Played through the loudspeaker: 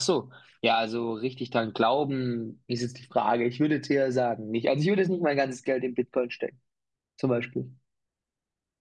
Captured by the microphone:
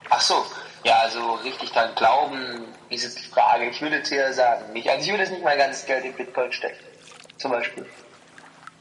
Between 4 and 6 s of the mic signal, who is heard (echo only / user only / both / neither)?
echo only